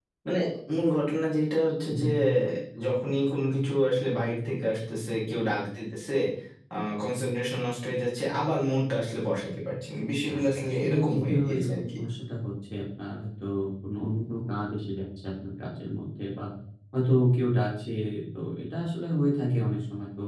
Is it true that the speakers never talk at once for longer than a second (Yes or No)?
No